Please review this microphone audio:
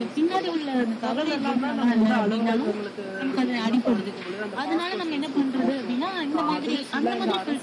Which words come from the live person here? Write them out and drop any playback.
none

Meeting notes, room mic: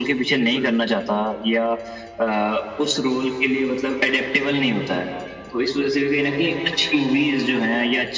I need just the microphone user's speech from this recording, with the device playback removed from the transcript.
बिल्कुल।

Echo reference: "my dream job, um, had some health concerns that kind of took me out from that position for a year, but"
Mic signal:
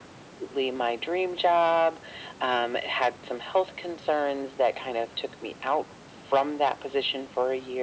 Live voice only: none

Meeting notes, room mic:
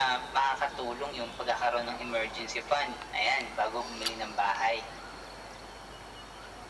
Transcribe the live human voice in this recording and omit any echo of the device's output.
none

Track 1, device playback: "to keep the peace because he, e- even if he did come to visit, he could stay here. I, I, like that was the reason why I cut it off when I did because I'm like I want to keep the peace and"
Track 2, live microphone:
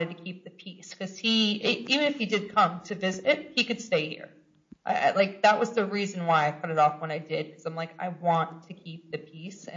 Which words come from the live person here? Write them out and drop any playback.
none

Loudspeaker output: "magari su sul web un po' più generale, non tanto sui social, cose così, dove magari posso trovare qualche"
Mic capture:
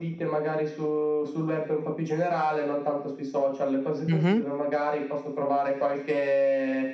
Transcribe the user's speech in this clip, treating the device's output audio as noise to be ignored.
Mh-mh.

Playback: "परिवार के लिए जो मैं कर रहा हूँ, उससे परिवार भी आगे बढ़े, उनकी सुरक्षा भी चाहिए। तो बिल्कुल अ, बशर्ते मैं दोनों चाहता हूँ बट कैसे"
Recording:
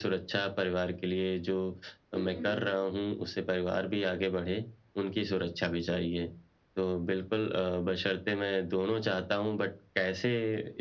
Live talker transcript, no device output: हुँ, हुँ।

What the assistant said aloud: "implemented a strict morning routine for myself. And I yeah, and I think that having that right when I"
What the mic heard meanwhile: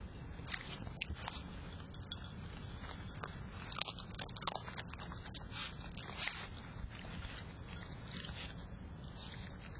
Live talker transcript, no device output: none

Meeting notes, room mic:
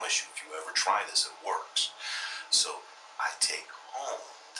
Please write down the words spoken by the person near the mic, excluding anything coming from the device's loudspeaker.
none

